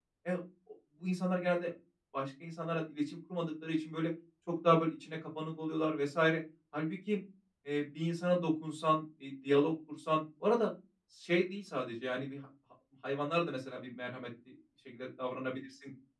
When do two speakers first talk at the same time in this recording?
none

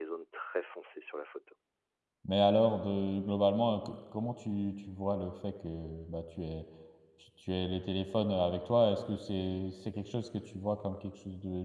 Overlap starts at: none

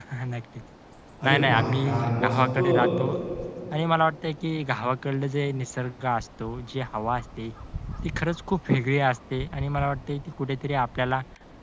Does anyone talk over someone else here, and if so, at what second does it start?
1 s

